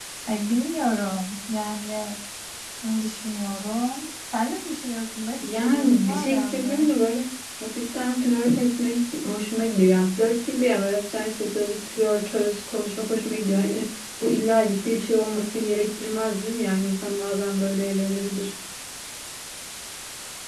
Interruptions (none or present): present